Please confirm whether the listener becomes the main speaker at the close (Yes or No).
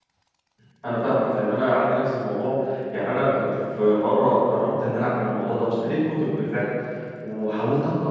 No